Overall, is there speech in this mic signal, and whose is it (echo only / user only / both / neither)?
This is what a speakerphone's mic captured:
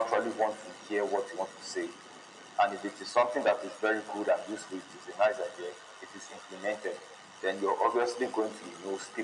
echo only